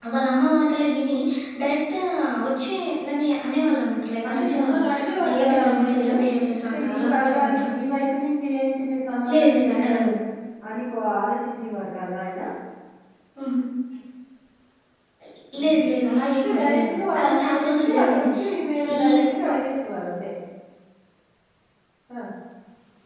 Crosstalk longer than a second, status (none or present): present